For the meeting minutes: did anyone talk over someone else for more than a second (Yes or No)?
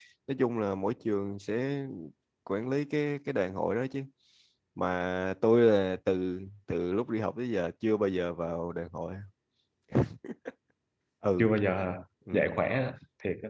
No